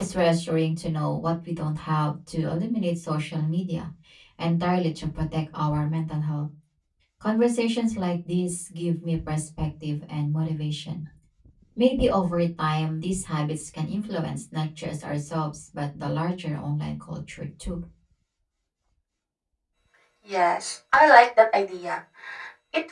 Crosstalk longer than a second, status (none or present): none